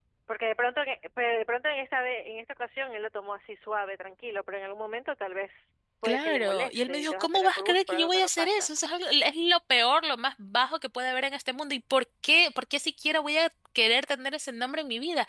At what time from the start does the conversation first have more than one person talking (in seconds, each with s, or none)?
6.0 s